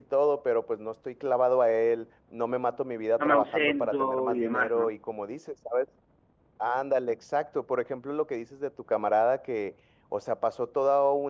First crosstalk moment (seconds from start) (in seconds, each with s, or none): 3.2 s